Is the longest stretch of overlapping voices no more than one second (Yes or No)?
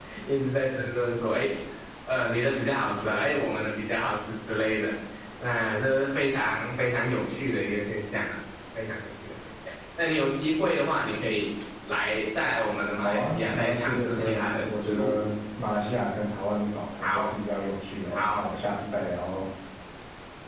No